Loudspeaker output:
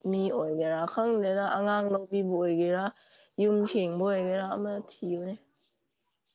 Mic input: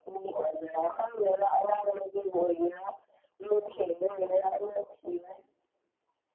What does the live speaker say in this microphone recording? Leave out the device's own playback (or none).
none